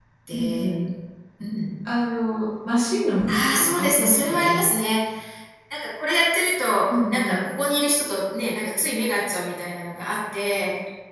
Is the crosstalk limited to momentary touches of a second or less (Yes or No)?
No